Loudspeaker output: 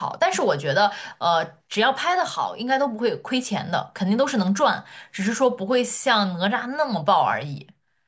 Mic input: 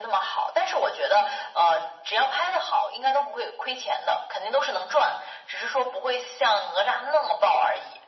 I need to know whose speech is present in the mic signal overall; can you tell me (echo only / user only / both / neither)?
echo only